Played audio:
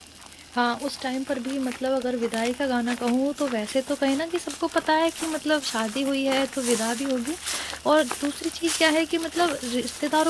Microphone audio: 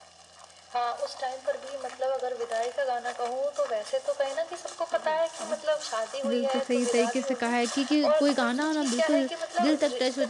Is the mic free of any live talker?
No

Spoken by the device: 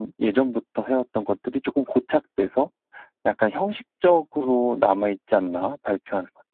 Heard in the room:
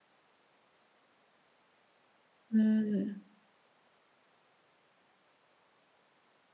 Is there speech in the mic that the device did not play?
Yes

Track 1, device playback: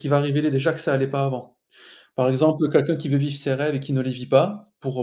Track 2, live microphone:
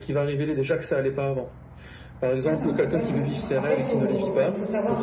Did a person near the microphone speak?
Yes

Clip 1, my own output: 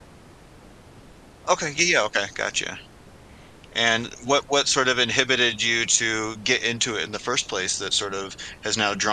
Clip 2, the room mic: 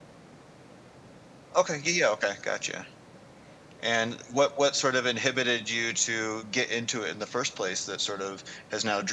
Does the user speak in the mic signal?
No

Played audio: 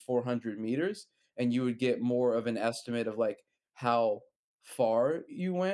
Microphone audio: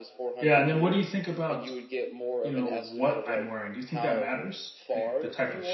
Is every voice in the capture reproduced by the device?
No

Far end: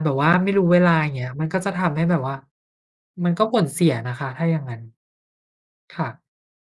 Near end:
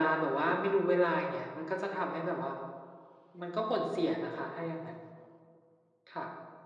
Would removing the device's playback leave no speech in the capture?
Yes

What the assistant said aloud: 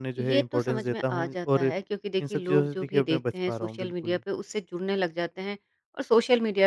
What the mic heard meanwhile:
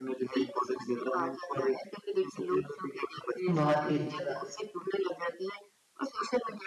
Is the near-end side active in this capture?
Yes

